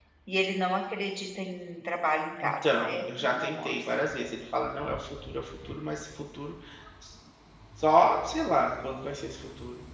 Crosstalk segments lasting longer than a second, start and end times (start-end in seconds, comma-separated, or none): 2.4-3.7